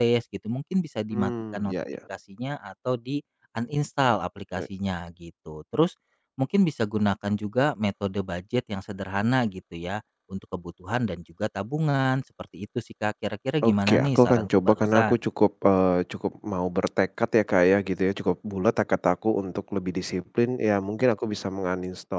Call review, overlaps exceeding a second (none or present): present